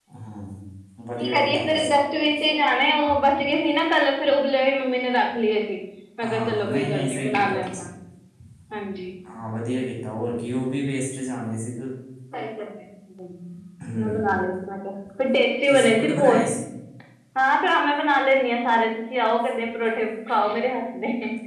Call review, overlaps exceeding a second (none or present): present